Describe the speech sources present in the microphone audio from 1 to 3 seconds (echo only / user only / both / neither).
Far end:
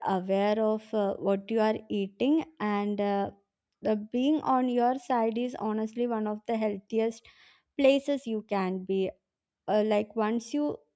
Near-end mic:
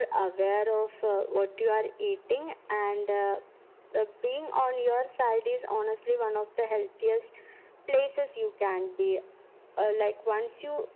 echo only